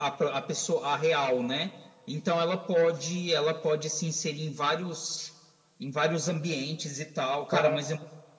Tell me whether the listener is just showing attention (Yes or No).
Yes